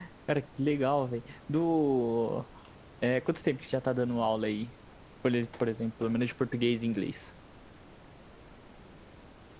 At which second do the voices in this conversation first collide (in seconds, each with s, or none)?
none